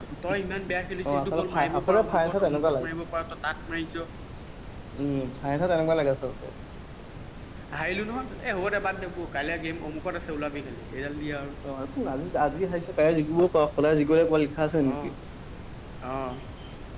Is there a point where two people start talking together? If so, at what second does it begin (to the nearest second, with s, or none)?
1 s